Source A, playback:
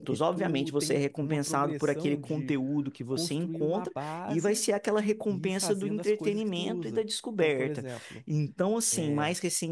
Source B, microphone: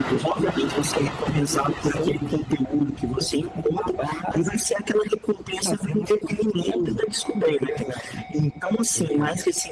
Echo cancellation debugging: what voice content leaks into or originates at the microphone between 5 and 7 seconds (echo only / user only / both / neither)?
echo only